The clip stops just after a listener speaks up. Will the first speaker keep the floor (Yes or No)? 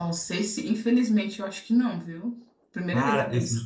No